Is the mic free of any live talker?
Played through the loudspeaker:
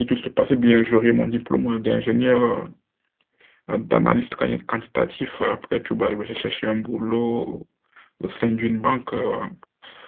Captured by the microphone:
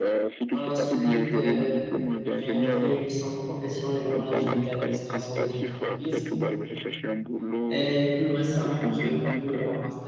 No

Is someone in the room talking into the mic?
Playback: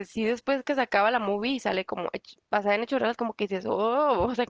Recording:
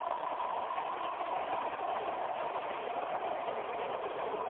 No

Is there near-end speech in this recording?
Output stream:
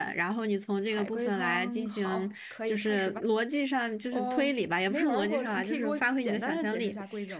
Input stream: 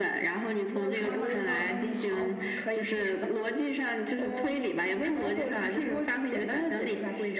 Yes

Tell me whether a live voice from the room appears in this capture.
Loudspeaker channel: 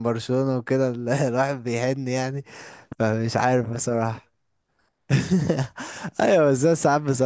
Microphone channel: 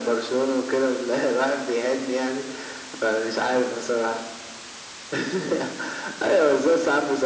No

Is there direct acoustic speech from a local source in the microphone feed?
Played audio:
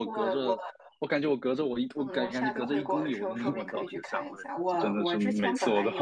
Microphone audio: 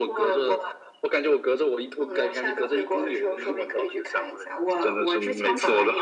No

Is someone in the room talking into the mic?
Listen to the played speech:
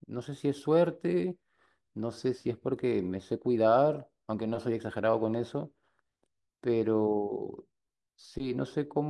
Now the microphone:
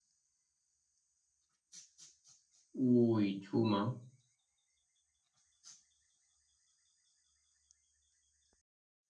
Yes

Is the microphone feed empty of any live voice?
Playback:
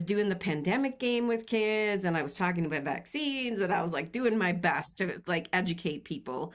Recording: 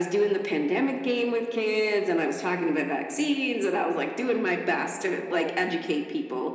No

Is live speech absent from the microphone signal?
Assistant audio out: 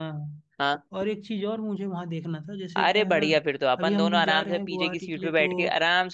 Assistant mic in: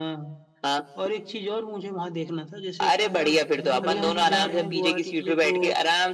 No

